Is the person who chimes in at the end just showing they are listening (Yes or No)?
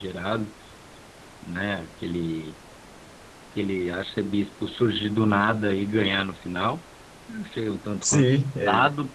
No